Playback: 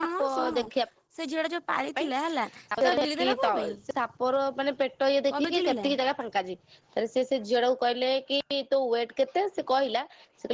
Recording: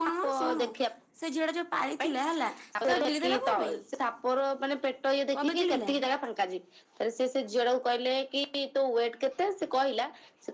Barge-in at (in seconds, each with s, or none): none